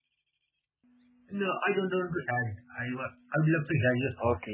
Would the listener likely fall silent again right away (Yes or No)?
No